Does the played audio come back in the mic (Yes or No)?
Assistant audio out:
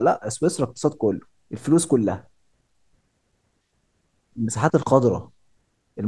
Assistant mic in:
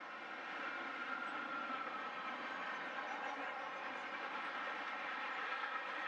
No